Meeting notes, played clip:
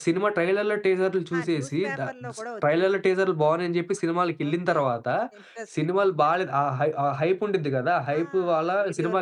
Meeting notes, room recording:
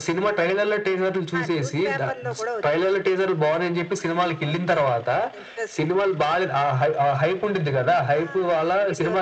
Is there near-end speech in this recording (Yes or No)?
No